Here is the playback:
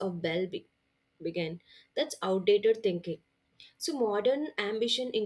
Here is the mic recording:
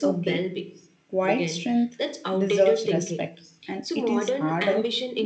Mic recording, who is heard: both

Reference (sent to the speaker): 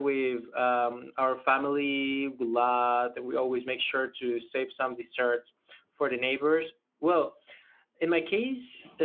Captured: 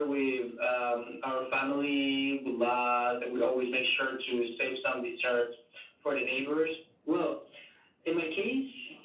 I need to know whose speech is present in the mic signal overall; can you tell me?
echo only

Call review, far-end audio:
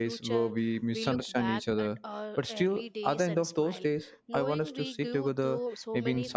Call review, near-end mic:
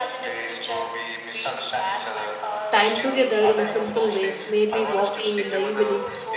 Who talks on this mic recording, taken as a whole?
both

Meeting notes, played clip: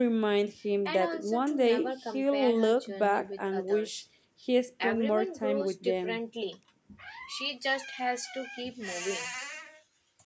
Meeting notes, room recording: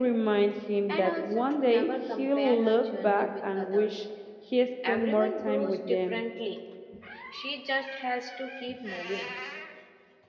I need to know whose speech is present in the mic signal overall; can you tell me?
echo only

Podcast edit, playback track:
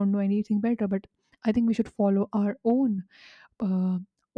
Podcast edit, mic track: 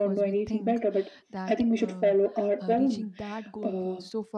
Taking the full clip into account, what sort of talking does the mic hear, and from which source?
both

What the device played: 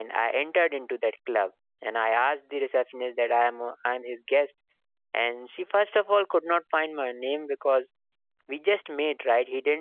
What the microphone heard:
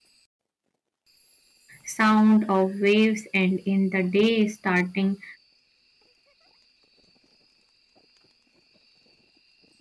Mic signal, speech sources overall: user only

